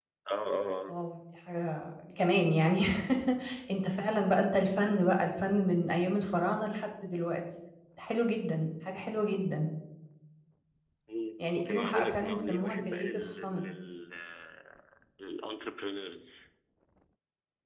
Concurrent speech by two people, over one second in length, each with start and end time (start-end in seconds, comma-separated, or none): 11.5-13.6